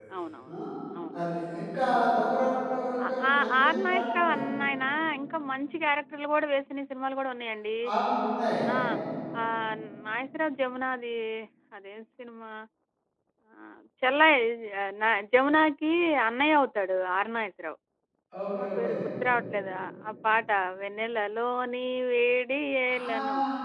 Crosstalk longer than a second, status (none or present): present